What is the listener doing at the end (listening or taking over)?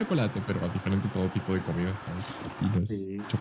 taking over